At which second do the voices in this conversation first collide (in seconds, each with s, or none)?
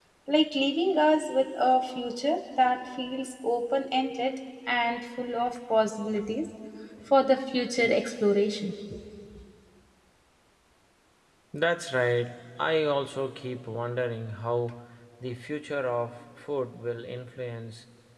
none